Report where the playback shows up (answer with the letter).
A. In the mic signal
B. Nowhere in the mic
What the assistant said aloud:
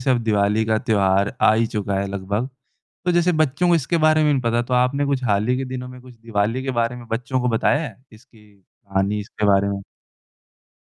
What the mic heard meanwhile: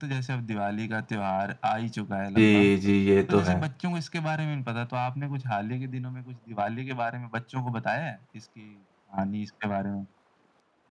A